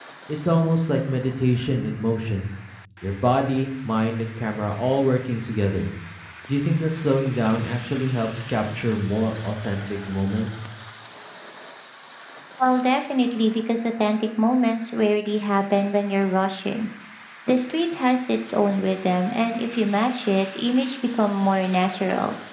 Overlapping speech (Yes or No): No